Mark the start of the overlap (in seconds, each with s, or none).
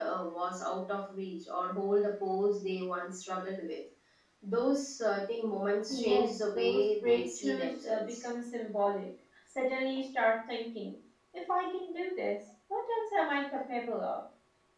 5.9 s